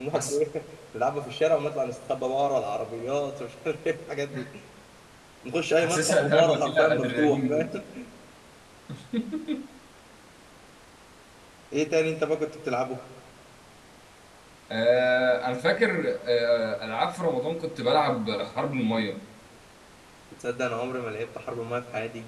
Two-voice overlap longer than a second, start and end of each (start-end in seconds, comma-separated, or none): 5.8-7.7